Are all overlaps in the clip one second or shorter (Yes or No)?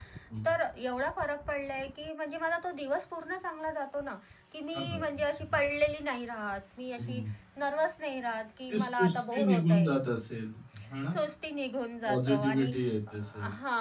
No